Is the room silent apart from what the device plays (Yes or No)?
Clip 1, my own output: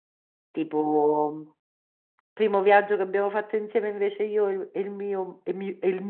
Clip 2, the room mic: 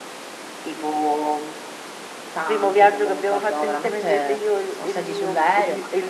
No